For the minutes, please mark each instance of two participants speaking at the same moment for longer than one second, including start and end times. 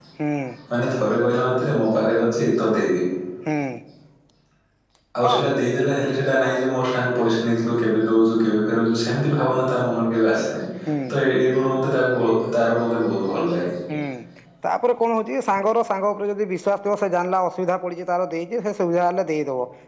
none

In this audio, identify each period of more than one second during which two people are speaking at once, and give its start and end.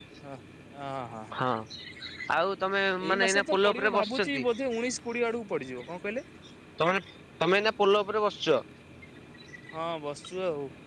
3.1-4.3

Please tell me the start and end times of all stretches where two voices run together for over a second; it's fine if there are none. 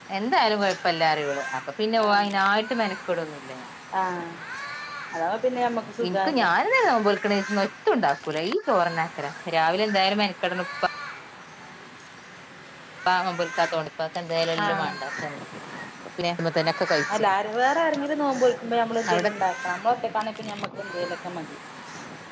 none

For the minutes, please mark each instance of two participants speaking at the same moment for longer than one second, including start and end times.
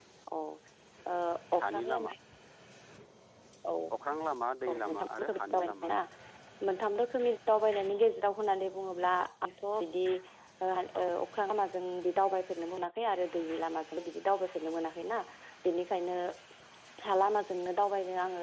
4.7-5.9

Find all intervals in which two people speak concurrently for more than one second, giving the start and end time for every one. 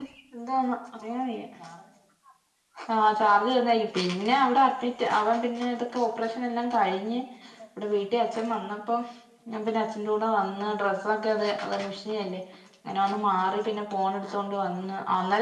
none

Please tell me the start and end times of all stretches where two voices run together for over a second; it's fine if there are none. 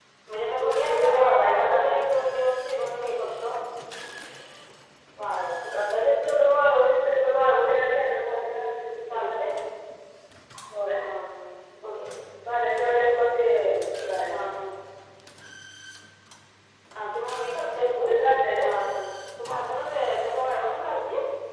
0.6-1.9

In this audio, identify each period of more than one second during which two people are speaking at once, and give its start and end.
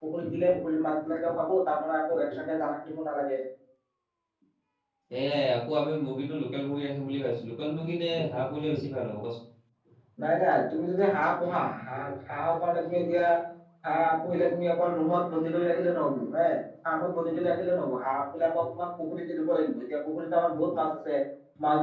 none

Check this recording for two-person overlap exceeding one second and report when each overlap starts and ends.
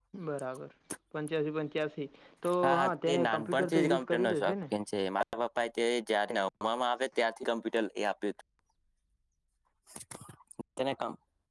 2.6-4.5

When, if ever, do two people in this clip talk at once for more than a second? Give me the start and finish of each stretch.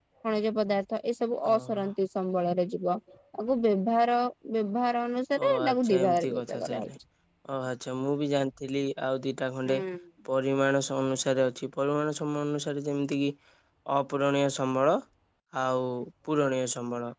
5.4-6.9

